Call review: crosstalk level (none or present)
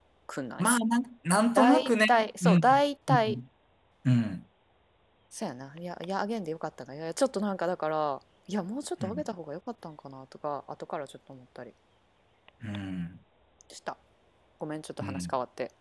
present